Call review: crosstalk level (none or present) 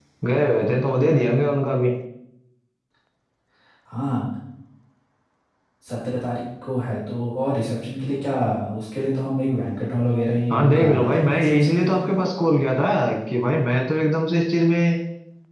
present